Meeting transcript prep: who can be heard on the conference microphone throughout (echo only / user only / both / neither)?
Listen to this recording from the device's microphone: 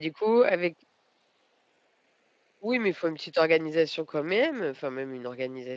user only